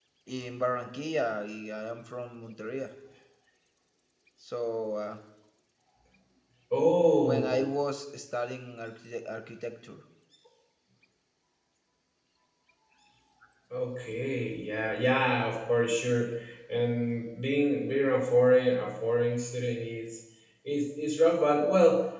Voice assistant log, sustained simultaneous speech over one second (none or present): none